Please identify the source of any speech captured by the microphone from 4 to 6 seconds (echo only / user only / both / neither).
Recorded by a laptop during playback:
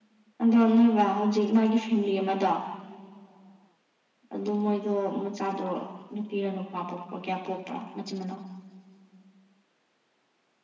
echo only